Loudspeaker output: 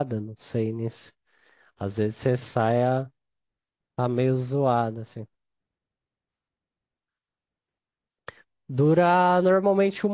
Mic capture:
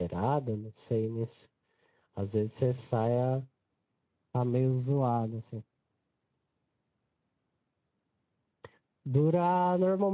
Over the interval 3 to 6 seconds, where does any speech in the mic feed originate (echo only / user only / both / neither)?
echo only